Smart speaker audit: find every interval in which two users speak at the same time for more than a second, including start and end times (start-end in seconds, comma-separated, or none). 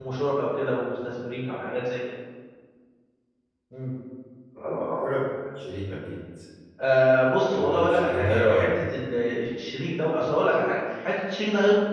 7.4-8.7